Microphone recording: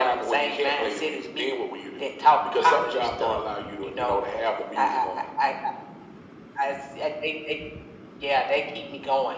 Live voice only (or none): none